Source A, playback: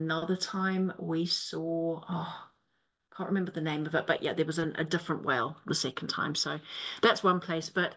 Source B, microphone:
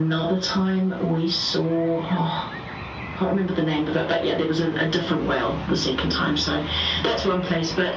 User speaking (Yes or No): No